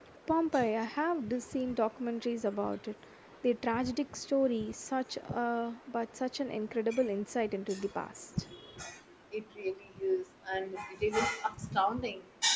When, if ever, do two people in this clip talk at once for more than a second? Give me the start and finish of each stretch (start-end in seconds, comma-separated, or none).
none